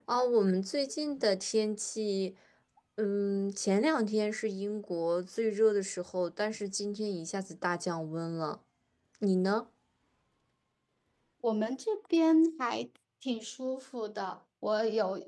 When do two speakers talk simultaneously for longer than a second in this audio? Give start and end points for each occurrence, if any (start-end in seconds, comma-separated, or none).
none